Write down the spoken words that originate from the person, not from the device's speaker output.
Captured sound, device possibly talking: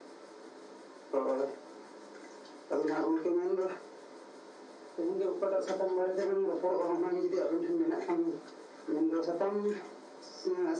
none

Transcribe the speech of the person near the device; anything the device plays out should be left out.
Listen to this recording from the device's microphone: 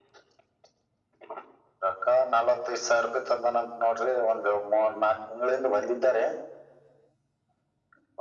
none

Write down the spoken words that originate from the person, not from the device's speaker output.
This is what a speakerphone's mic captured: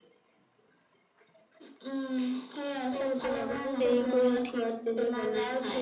দেৰিকৈ উঠি

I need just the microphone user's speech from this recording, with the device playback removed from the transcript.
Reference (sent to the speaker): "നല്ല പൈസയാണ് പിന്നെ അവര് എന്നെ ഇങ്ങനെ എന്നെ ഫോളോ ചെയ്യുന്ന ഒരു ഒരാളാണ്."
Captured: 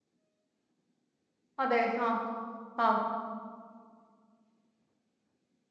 അതെ ആ ആ

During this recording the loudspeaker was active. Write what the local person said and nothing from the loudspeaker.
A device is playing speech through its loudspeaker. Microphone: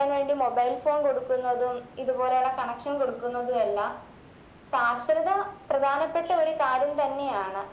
none

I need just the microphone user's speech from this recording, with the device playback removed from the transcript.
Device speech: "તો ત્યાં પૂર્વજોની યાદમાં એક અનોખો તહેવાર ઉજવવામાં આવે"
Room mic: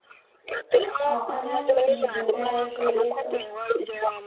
હા અને આમ બીજો તહેવાર જોઈએ તો

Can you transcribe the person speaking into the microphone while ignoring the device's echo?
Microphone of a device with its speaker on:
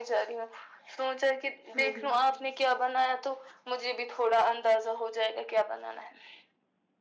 ہوں ہوں

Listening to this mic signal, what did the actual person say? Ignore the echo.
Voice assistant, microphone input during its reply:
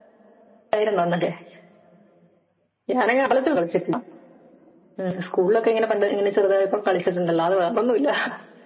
none

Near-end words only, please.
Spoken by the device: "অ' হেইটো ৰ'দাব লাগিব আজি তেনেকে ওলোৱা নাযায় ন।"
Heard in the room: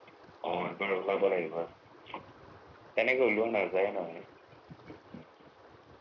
none

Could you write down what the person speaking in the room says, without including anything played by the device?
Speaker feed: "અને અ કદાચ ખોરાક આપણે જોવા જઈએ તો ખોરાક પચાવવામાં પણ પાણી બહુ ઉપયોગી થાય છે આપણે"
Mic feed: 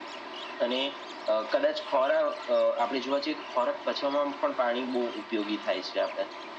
none

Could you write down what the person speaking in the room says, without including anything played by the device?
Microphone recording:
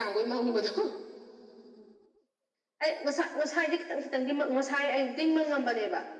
none

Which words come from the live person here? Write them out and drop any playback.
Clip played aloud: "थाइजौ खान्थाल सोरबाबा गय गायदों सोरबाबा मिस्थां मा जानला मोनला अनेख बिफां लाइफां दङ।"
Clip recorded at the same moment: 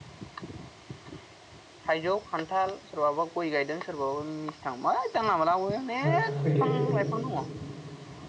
ना फैदो

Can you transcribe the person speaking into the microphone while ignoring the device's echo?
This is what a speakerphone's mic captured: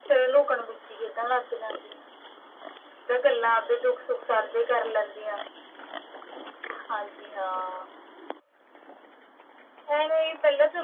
none

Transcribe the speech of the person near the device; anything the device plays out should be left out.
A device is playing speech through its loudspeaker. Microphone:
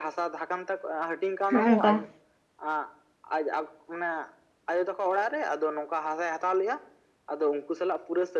ᱱᱚᱜ-ᱚᱝᱠᱟ᱾

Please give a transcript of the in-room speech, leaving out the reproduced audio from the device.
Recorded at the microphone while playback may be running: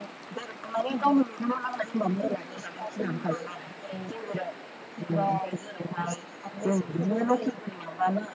none

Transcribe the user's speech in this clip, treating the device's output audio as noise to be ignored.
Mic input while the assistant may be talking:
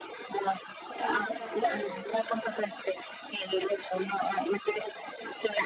म आता काय करायचं ग?

